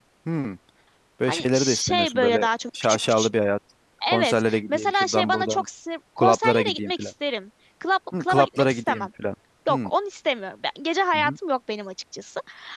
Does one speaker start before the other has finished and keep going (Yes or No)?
Yes